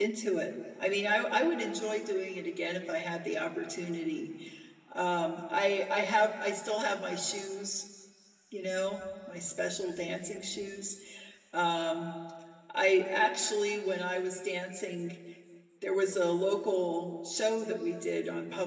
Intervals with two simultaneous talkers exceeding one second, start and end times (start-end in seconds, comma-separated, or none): none